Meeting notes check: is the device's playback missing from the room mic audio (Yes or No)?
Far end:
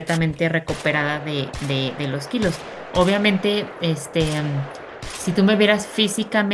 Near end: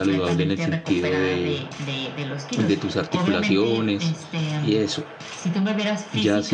No